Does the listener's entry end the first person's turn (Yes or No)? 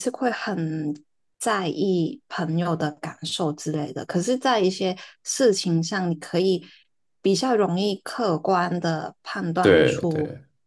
No